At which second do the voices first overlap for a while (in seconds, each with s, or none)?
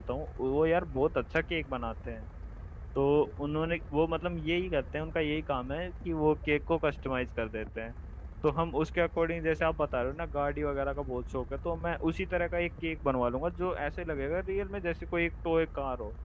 none